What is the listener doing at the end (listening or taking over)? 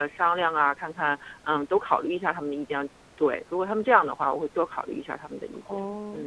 taking over